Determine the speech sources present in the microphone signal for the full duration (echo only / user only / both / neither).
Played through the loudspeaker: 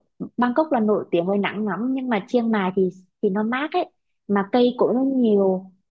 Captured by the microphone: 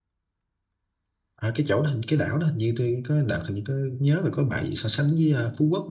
user only